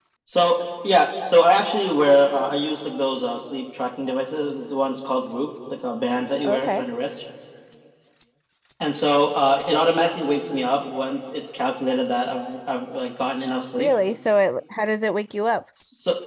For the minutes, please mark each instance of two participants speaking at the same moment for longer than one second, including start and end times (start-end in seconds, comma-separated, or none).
none